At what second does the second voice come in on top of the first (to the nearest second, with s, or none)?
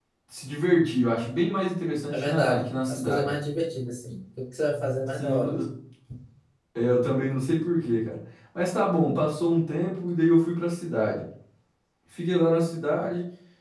2 s